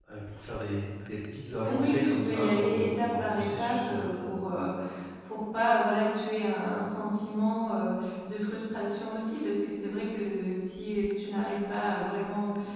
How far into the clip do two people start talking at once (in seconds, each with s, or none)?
1.6 s